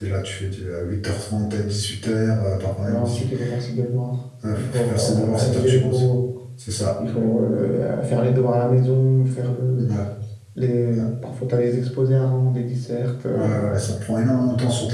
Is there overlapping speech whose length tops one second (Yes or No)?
Yes